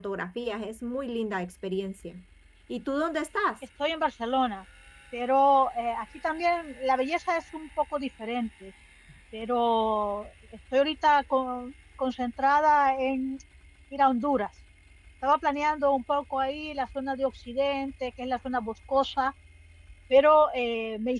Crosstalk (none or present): none